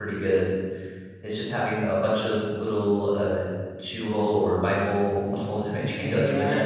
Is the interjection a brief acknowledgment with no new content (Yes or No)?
No